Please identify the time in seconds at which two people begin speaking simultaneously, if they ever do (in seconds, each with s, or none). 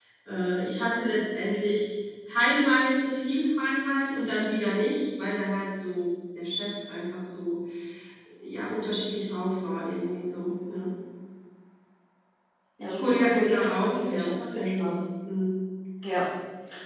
13.0 s